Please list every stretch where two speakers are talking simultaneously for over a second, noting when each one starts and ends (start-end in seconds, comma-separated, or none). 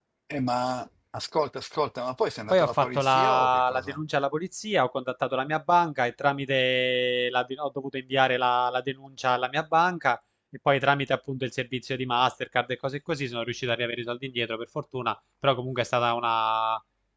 2.5-4.0